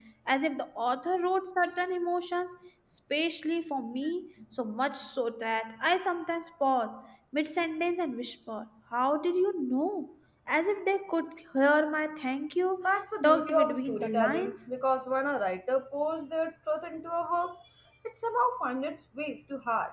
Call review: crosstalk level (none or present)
present